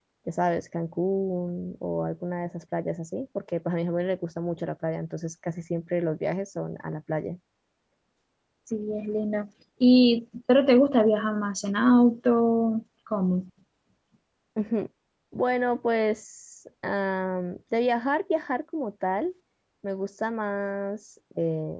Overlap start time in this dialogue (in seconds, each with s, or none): none